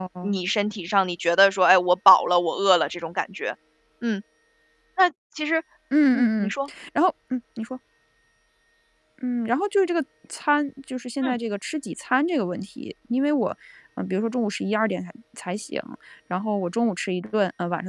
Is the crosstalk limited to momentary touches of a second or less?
Yes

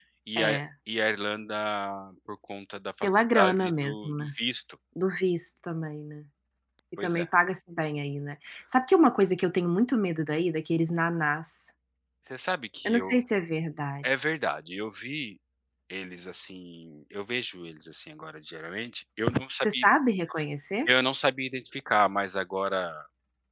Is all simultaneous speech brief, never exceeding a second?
No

